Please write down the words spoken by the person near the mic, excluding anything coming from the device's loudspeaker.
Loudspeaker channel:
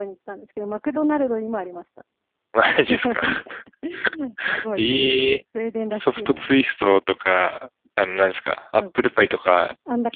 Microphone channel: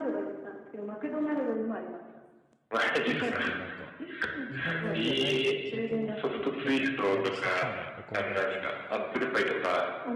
いいですね。じゃあなんか、日本米ではないけど、なんか、慣れ親しんだお米なんですね、じゃあ。

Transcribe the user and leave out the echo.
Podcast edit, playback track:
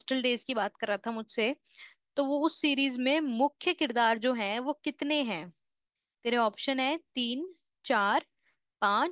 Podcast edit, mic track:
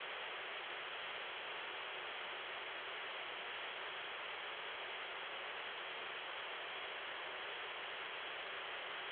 none

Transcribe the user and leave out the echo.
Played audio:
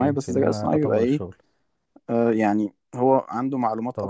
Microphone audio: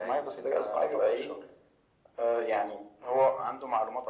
none

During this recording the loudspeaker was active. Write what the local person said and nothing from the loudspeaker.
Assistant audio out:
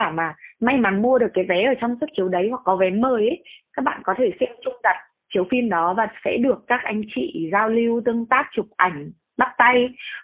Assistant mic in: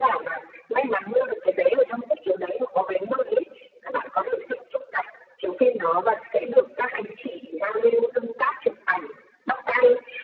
none

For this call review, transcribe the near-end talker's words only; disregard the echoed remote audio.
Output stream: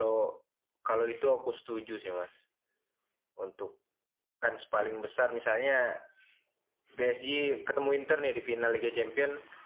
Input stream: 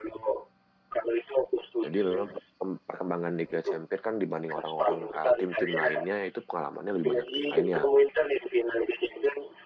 Jadi memang perkemb- perkembangan Liga Champions kan dibanding orang-orang uh, tim-tim lainnya itu pengalamannya lebih banyak tim lainnya

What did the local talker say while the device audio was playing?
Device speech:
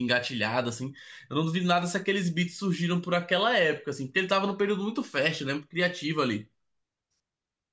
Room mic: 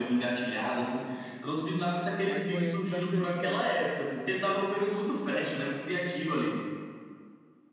Mas foi antes da treta, né?

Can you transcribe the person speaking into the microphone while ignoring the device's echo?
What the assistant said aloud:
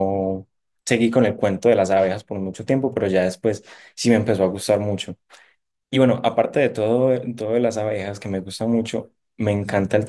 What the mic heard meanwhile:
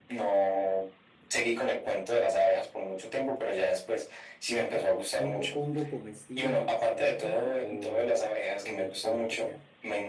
Ah, o o hongo comestible alucinógeno o, o, del, o de lo que sea.

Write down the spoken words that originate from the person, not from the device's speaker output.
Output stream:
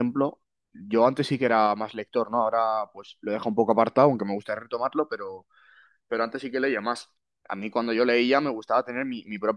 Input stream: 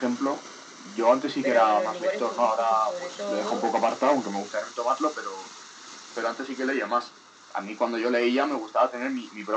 pero en los lugares turísticos sobre todo,

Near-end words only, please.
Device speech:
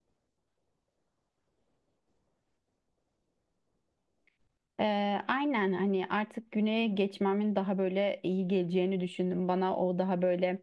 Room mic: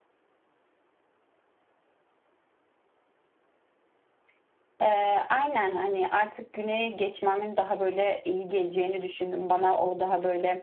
none

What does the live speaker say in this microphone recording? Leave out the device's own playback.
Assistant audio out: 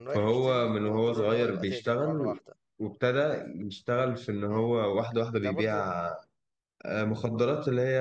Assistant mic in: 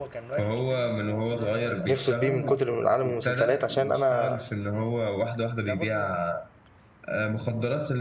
نفصل بيه من كتر من عالم المسلسلات عشان أنا

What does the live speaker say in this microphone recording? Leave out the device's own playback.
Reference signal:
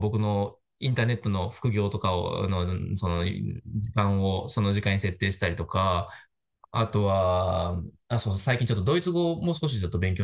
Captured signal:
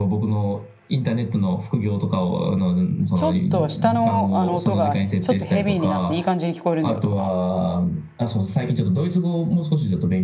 ちょっと下の、あの音がちょっとヘビーになっていい感じに聞こえるんだよとか。

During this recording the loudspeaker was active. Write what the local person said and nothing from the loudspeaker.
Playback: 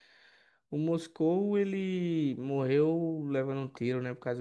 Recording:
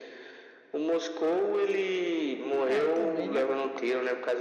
É, também, né?

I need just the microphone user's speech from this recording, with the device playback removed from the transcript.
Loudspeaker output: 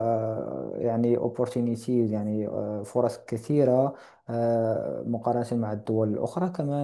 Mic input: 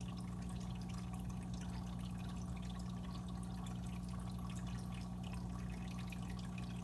none

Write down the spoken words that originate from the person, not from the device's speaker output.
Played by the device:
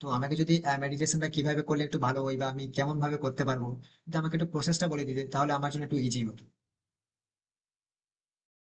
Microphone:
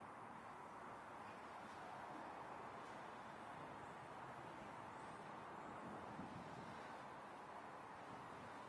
none

